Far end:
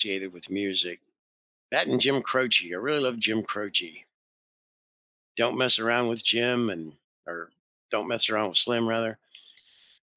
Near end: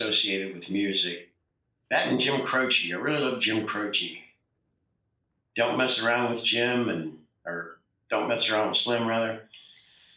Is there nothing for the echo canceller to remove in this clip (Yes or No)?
No